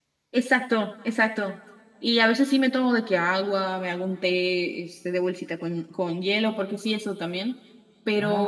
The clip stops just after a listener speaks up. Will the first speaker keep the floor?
No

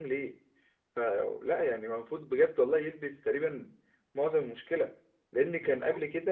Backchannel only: Yes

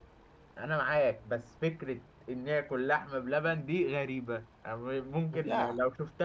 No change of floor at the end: Yes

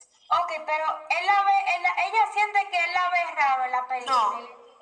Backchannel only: No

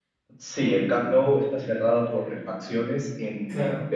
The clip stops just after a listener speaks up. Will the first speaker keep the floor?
Yes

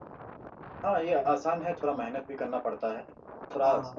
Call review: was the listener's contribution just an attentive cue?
Yes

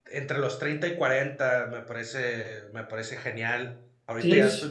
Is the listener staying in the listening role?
Yes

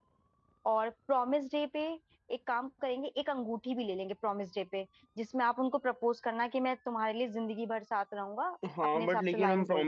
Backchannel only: No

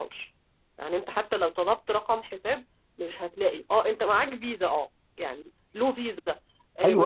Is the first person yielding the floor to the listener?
Yes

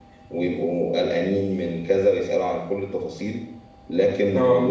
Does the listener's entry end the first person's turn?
No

